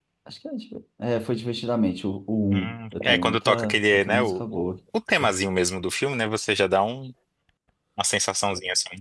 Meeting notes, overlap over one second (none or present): present